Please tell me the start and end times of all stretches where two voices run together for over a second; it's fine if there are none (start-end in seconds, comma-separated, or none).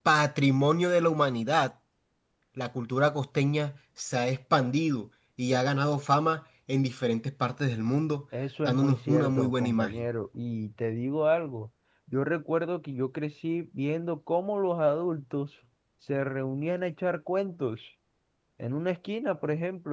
8.7-10.1